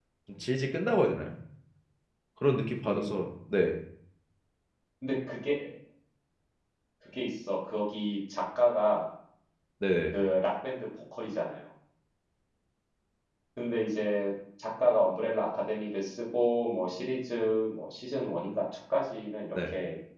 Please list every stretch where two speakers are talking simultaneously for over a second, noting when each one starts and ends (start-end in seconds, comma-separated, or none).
none